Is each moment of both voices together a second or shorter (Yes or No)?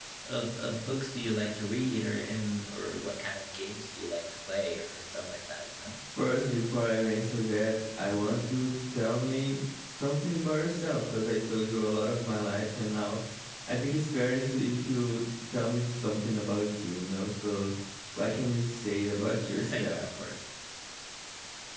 Yes